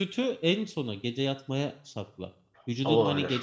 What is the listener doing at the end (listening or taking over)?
listening